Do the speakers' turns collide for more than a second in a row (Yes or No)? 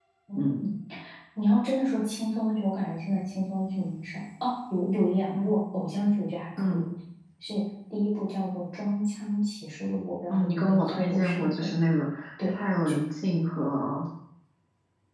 Yes